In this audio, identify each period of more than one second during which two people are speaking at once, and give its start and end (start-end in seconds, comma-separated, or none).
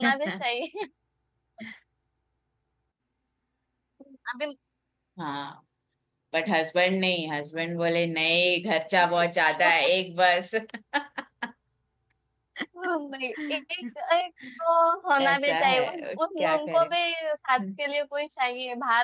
15.2-16.9